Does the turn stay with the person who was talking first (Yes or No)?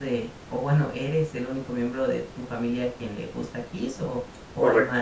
No